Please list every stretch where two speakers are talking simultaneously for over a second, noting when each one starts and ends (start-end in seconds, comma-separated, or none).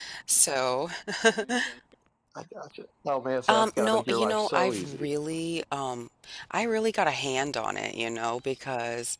3.5-5.1